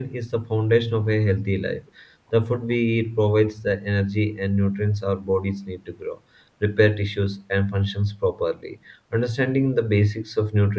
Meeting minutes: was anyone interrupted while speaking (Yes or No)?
No